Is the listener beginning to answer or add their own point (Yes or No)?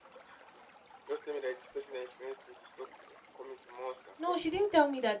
Yes